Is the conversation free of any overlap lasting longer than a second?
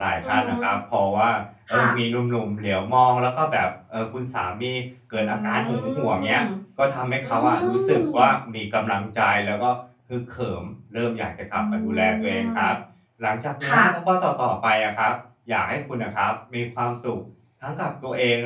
No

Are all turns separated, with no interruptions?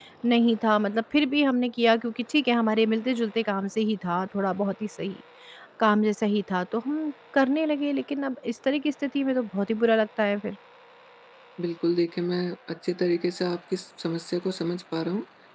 Yes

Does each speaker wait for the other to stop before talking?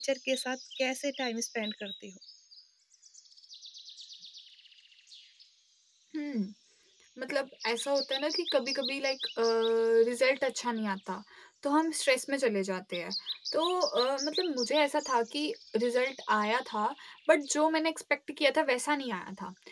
Yes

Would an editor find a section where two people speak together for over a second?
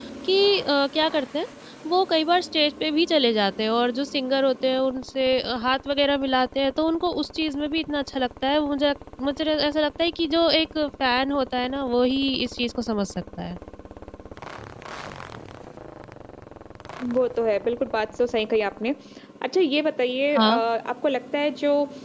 No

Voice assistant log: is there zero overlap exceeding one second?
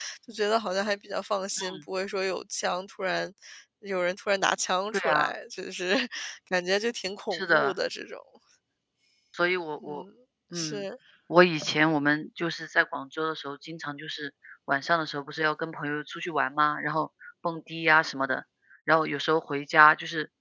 Yes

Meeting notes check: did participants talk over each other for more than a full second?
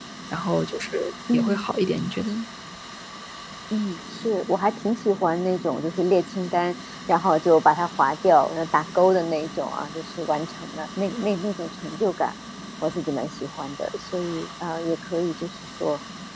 No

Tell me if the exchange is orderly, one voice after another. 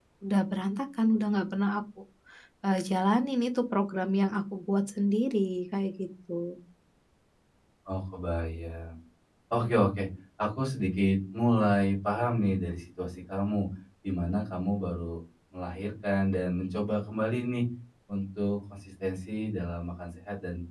Yes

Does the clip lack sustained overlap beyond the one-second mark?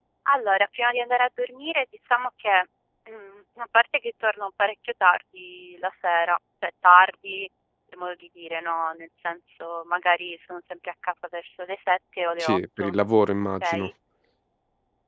Yes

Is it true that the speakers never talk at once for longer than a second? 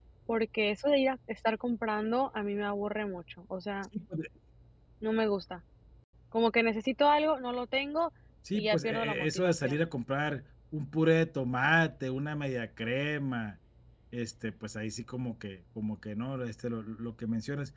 No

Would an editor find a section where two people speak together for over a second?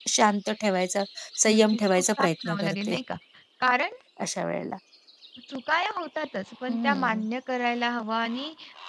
Yes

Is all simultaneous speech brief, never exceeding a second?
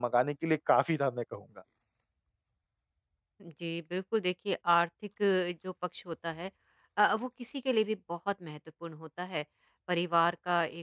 Yes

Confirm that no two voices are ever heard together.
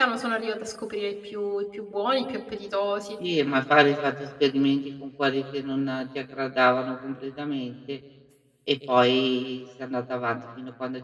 Yes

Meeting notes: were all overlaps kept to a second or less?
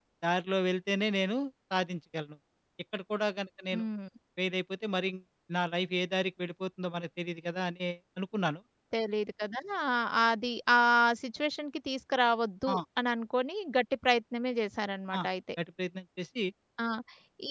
Yes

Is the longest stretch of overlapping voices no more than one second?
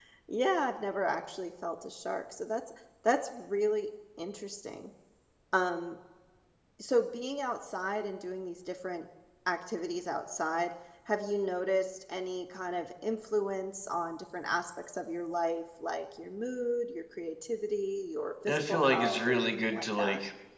No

